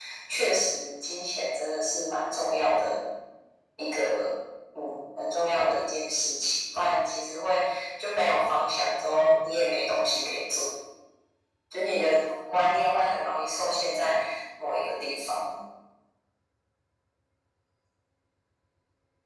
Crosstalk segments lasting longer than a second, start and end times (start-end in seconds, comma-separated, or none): none